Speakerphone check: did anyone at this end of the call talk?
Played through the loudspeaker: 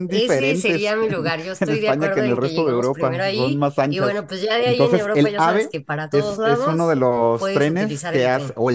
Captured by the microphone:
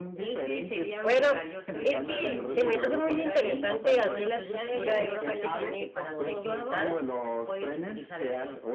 Yes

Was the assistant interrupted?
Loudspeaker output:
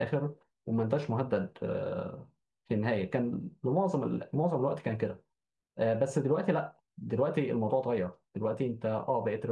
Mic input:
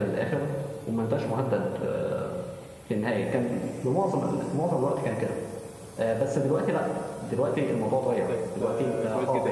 Yes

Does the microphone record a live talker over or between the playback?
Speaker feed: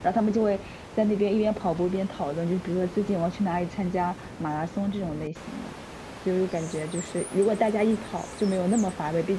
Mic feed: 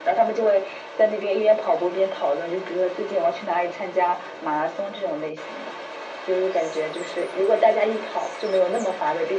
No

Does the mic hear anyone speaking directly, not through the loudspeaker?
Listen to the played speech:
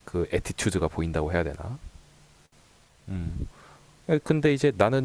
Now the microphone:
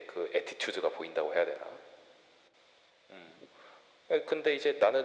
No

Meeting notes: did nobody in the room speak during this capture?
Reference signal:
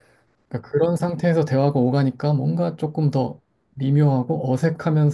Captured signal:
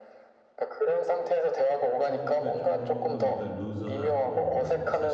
No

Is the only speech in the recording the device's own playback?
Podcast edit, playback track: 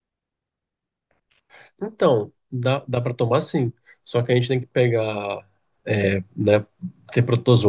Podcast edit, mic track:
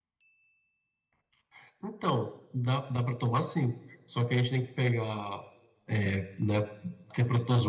Yes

